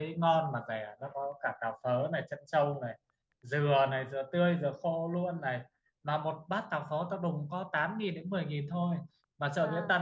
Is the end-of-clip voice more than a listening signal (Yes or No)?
No